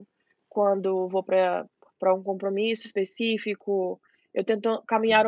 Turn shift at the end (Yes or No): No